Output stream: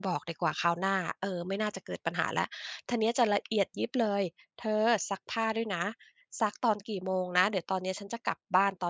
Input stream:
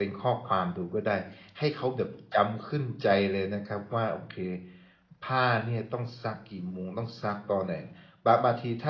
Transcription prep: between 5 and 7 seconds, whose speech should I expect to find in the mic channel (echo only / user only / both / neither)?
user only